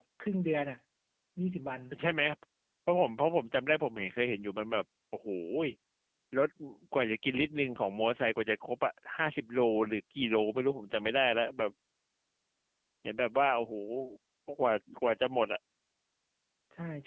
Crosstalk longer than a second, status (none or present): none